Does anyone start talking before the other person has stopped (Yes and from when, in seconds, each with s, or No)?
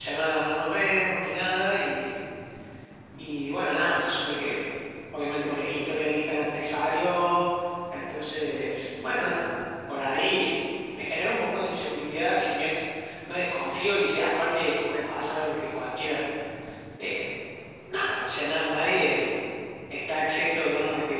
No